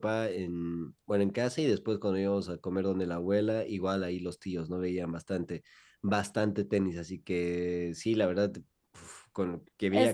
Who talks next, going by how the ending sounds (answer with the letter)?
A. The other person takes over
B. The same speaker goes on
A